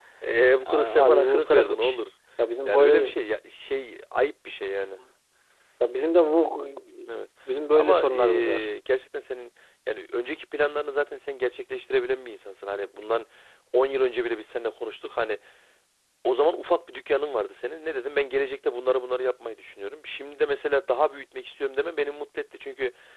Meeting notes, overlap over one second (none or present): present